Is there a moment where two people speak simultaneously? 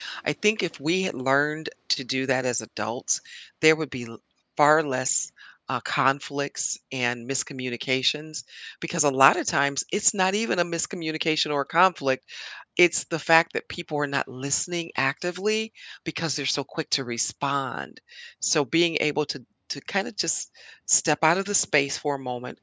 No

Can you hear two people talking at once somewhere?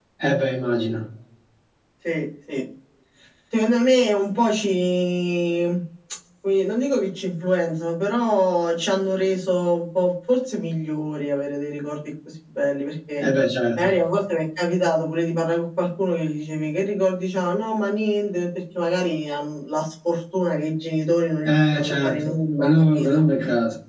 Yes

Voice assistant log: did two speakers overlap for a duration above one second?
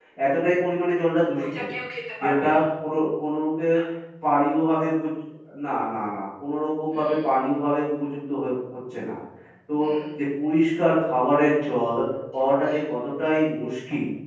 No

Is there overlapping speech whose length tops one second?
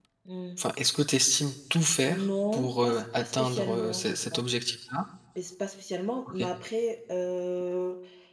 Yes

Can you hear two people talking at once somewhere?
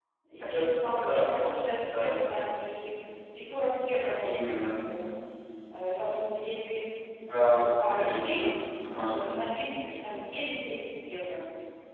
Yes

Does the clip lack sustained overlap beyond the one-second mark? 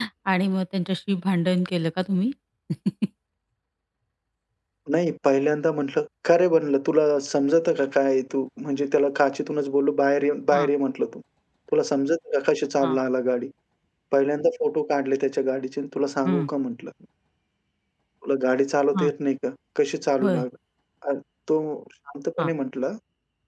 Yes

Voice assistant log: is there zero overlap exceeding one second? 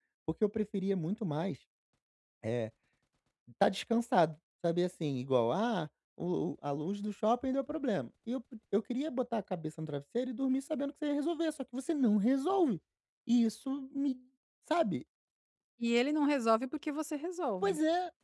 Yes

